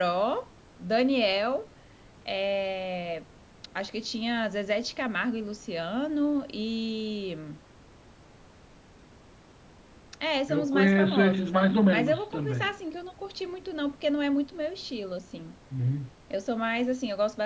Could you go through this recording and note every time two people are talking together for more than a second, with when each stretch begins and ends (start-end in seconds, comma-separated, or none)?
10.5-12.7